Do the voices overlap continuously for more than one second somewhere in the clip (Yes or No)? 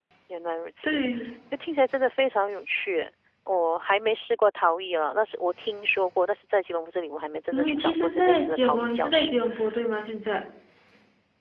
Yes